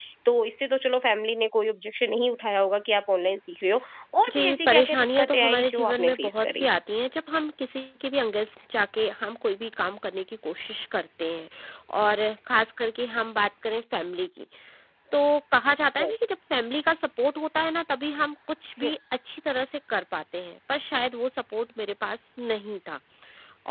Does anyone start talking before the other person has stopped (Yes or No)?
Yes